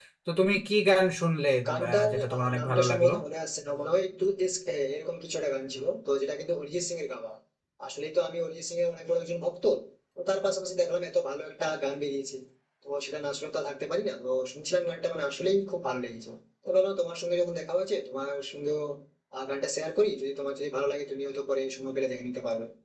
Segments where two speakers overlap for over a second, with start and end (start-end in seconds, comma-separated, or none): 1.7-3.1